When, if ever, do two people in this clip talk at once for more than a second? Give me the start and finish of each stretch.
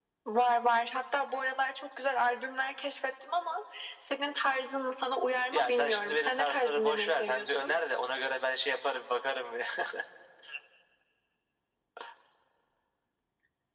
5.5-7.7

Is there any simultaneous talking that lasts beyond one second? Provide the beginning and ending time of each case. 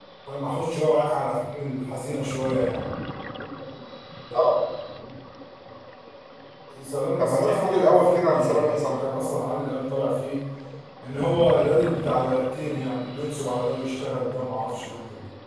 7.2-8.9

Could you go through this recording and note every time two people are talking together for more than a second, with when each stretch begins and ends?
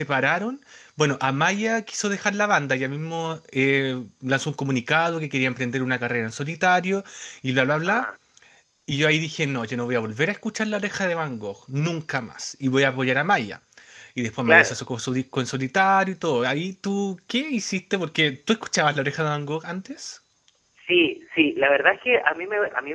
none

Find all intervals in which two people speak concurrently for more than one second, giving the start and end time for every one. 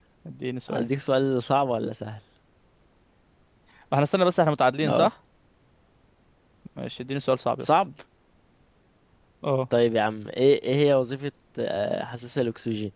none

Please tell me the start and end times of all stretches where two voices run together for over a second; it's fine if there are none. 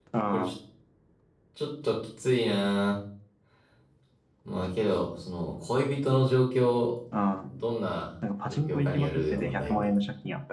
8.5-9.9

